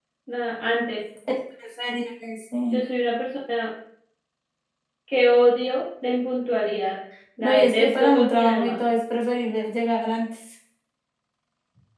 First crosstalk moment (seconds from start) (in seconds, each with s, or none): 7.4 s